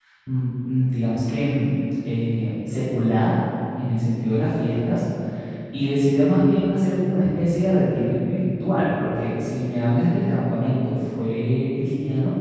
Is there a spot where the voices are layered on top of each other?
No

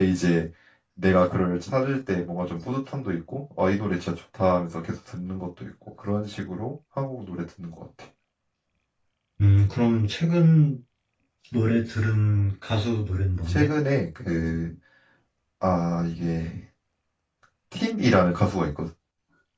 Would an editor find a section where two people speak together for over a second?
No

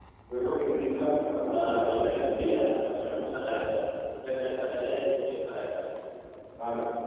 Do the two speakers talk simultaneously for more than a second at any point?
Yes, from 1.5 s

